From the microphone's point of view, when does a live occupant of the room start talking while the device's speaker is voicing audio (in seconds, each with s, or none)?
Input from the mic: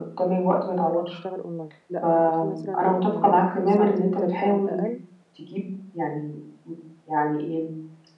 0.9 s